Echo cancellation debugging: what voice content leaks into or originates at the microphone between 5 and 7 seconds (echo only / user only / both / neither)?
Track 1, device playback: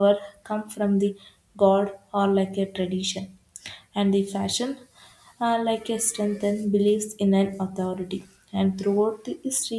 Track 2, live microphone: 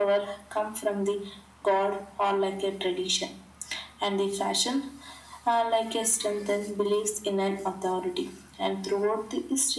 echo only